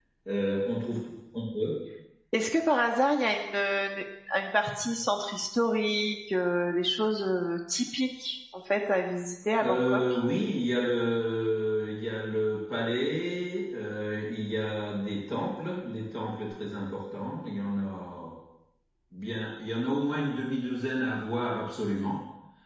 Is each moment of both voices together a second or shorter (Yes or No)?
Yes